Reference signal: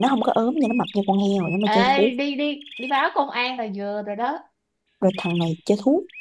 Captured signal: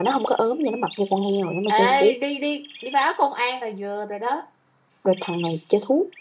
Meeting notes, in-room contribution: none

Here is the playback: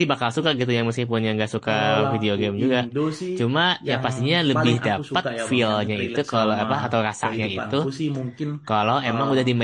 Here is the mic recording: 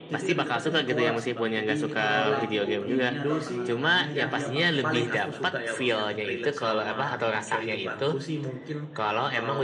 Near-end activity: present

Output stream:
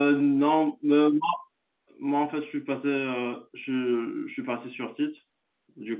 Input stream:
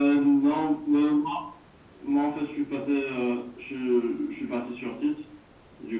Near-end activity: none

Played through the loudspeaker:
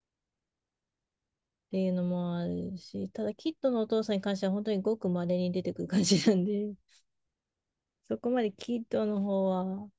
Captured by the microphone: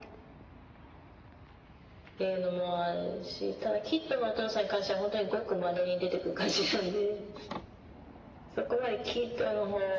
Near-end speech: none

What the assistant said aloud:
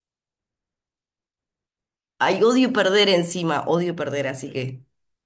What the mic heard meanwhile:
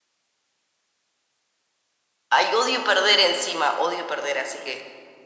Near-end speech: none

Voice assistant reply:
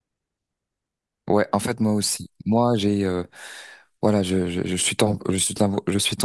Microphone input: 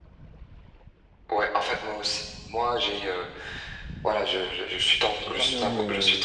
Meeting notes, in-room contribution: present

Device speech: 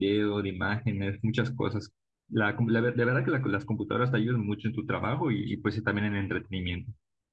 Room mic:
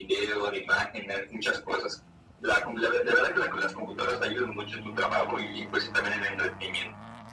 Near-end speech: none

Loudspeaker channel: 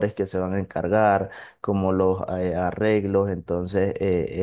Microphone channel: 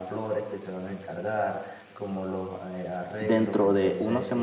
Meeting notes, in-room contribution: present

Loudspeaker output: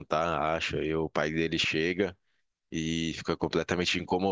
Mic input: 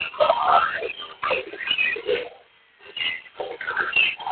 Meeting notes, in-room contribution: none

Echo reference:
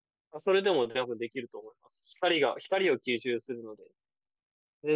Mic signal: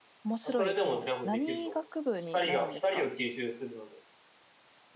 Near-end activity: present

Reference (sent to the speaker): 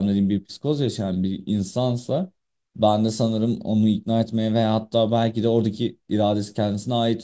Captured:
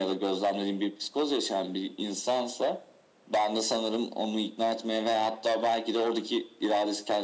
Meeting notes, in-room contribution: none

